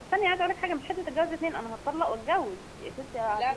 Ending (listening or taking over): taking over